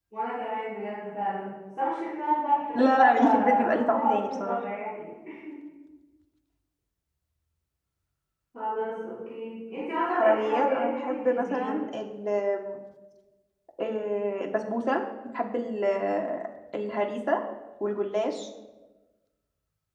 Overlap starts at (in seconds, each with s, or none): 2.8 s